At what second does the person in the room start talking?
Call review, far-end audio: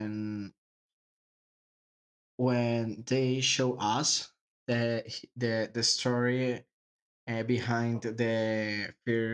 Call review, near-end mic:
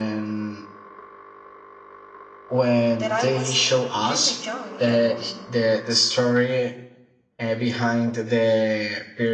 3.0 s

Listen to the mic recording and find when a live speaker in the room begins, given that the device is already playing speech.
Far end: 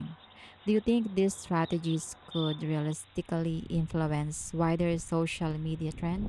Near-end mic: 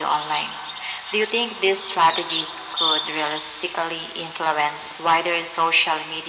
none

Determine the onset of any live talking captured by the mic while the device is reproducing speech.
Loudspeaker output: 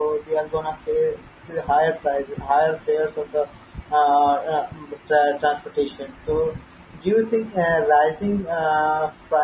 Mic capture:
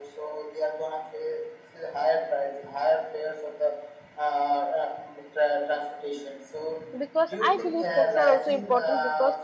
7.0 s

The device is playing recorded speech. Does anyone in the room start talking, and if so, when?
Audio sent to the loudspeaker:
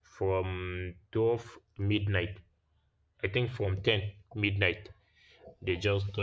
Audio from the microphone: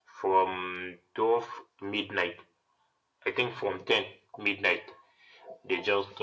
none

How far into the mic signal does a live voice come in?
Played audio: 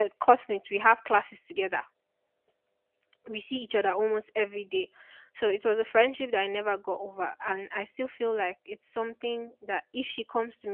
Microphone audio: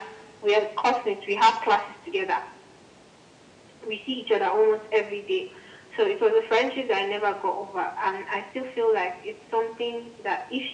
none

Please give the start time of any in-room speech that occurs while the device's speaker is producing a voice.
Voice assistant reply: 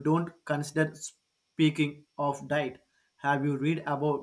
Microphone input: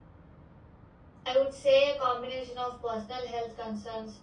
1.3 s

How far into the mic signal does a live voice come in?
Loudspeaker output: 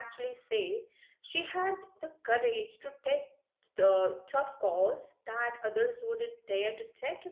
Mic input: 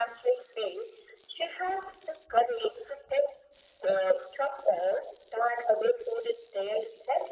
none

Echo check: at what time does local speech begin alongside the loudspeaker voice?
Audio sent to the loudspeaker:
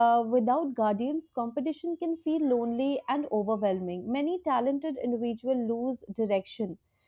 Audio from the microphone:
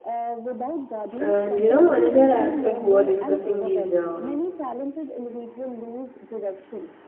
1.2 s

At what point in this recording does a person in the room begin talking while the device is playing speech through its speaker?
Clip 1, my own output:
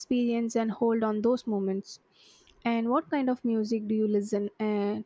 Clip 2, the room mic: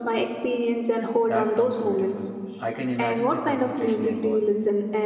1.3 s

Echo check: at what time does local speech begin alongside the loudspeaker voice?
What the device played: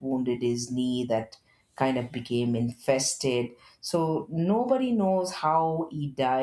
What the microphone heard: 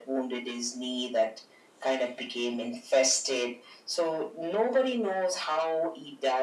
none

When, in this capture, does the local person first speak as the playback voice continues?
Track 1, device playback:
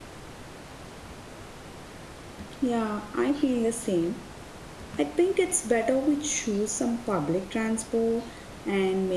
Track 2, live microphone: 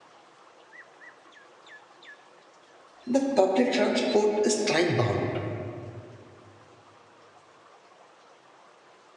3.1 s

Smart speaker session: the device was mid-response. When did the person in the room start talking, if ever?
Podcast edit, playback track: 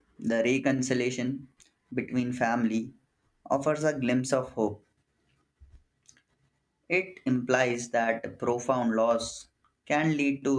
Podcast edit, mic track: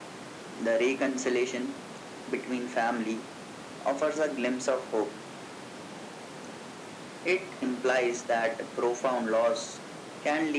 none

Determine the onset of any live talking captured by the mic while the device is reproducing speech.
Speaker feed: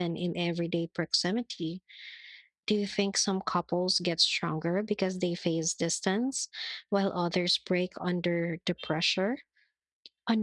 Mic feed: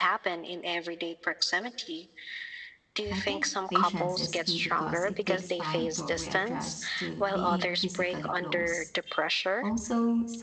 3.1 s

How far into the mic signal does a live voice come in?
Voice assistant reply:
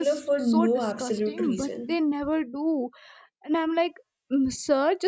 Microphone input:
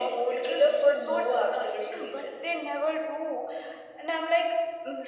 none

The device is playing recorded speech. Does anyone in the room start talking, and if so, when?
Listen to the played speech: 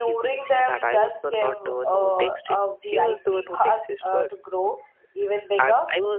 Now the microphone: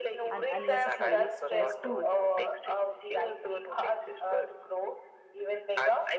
0.3 s

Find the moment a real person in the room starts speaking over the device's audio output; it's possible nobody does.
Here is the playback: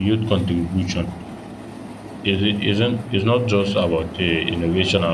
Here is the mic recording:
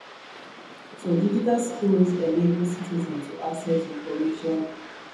0.9 s

